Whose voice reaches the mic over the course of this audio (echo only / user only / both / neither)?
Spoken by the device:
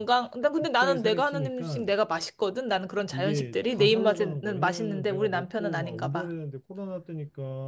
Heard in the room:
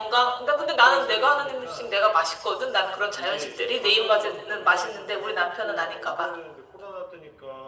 echo only